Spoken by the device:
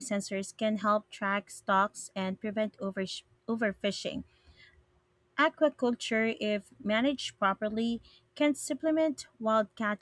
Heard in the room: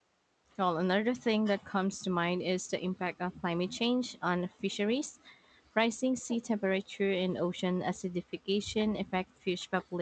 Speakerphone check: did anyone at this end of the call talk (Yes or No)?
Yes